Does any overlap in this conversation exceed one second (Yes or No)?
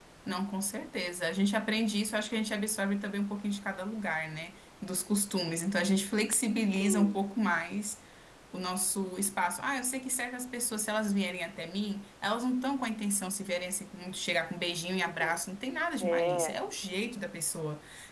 No